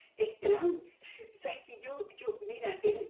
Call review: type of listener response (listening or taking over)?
listening